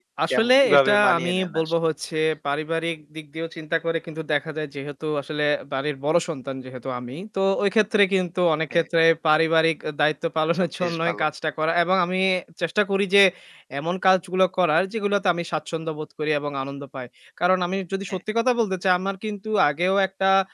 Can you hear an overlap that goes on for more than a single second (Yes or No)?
Yes